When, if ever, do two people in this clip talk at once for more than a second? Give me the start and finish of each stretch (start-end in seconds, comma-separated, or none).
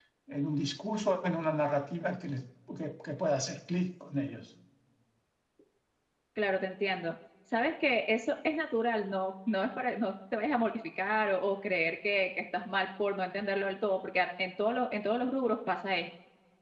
none